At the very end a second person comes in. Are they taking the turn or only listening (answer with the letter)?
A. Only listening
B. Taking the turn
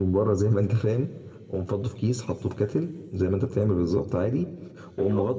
A